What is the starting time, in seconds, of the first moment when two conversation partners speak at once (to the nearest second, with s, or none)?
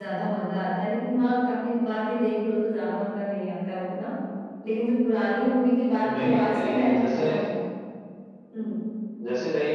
6 s